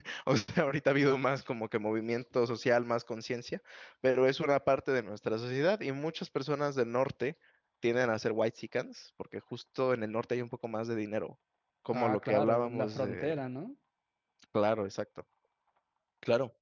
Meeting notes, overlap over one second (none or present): present